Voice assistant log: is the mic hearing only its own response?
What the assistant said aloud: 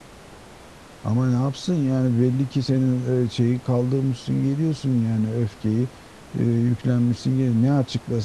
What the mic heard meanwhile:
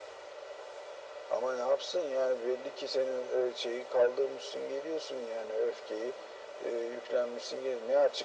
Yes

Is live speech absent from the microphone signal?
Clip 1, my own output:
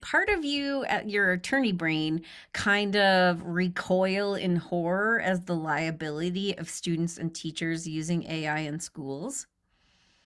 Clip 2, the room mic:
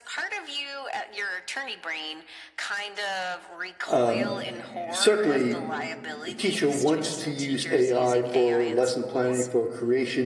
No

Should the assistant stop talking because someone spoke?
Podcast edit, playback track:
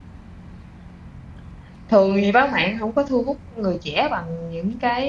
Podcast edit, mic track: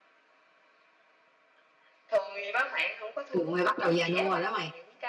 Yes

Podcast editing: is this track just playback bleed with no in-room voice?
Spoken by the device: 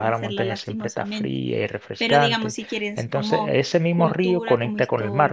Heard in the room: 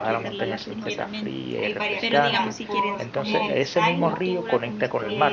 No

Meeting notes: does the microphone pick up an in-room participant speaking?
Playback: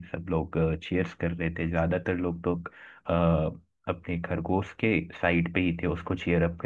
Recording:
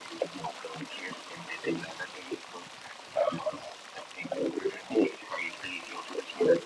No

